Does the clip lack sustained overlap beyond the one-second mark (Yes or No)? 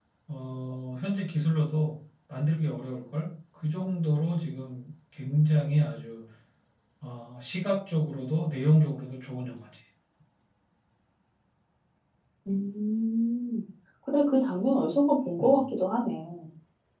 Yes